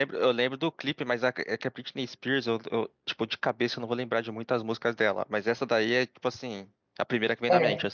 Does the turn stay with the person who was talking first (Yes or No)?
No